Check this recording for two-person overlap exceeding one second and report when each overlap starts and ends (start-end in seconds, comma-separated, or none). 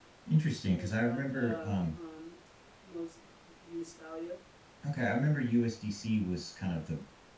0.7-2.0